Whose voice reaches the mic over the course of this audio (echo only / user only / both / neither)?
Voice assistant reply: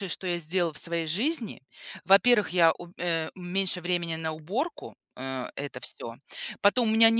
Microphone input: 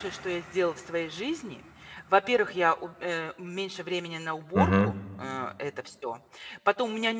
both